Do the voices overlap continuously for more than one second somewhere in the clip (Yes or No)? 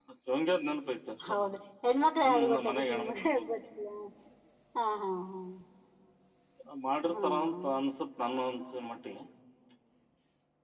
Yes